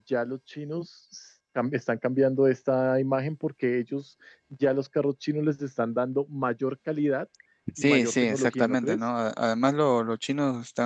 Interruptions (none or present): present